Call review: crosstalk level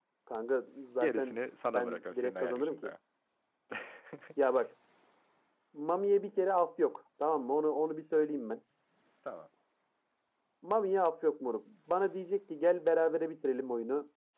present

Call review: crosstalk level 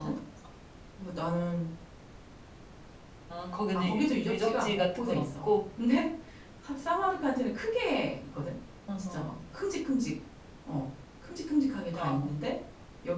present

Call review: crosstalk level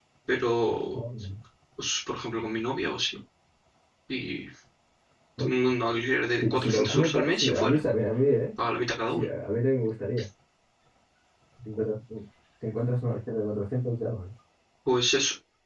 present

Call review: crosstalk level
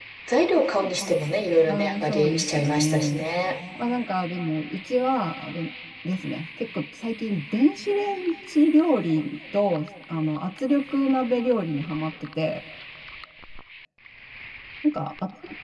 present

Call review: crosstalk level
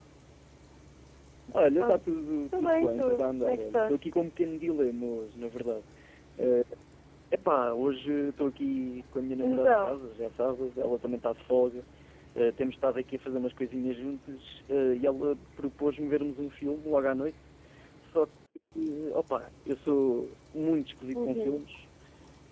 present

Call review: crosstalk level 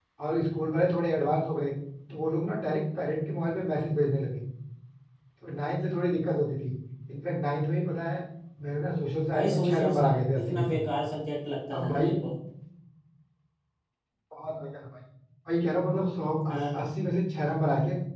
present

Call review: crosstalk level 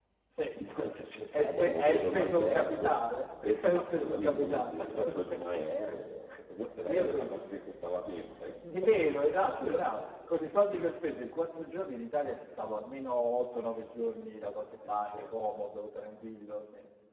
present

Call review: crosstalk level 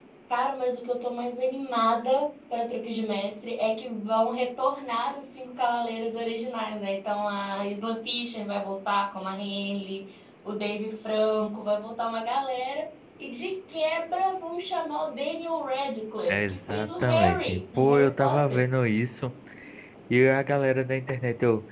present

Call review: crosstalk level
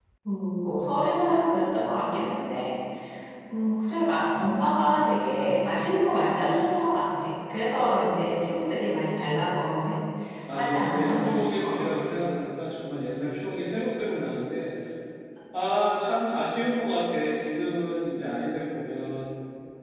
present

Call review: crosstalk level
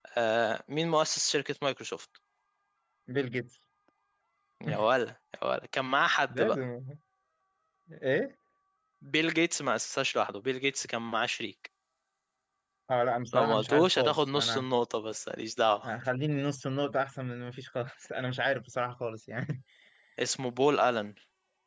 present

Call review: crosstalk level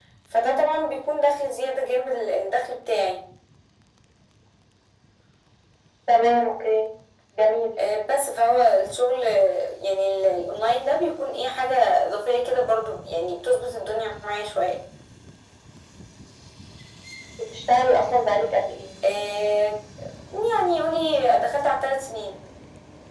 none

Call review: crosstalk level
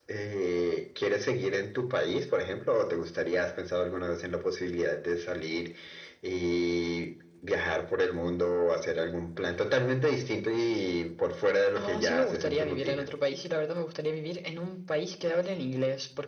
present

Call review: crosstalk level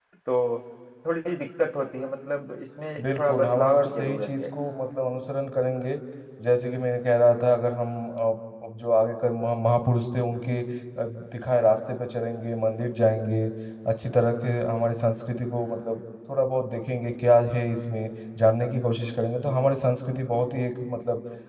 present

